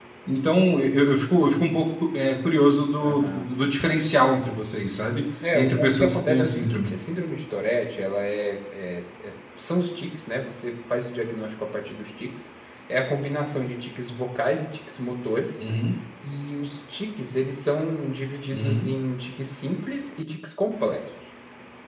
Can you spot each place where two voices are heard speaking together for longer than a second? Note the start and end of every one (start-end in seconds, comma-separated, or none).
5.5-6.9